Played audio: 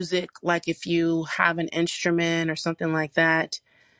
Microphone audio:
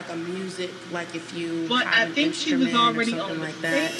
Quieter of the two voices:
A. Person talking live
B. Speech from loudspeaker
B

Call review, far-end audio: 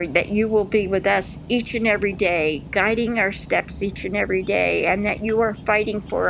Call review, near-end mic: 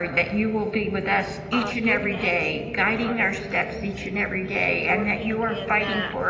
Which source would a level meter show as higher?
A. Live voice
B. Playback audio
B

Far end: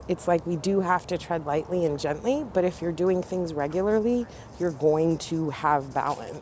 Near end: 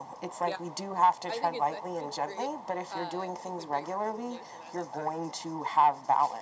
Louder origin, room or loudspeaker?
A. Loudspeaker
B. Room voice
A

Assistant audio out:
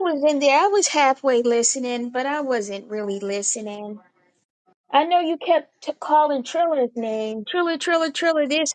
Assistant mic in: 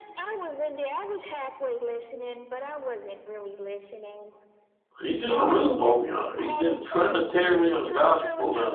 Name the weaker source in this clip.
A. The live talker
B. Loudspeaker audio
B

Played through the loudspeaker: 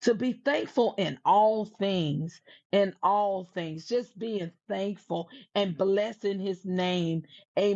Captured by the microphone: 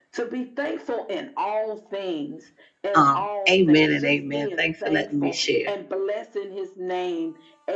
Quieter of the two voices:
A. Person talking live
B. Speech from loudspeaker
B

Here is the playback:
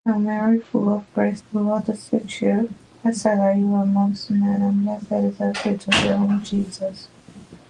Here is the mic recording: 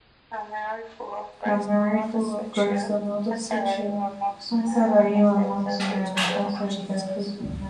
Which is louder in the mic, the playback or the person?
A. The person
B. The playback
A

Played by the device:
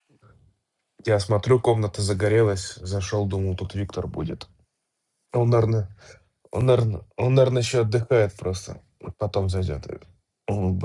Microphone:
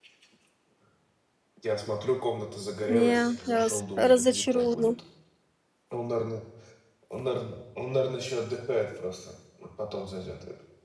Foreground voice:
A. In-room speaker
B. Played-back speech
A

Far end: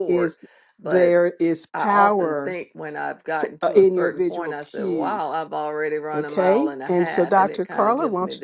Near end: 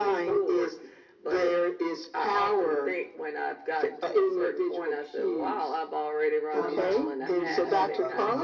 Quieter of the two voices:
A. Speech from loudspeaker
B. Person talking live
B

